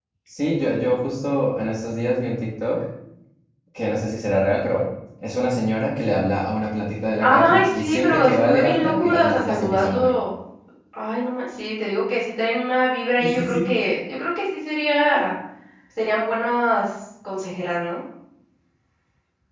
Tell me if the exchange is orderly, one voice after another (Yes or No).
No